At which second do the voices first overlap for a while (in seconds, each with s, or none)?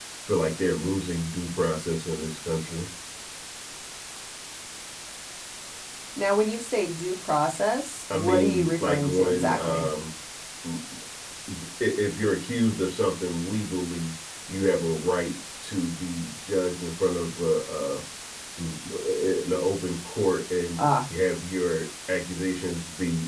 8.1 s